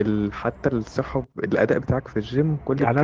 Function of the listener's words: taking over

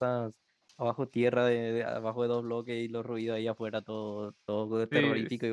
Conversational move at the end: taking over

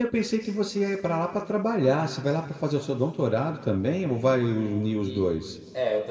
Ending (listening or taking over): taking over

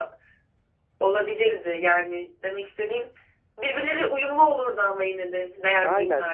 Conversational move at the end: taking over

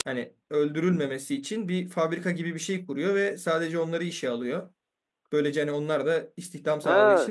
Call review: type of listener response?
taking over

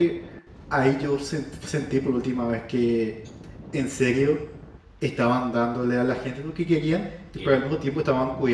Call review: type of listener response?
listening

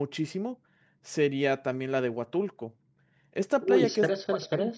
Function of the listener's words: taking over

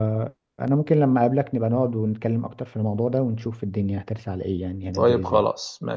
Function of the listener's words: taking over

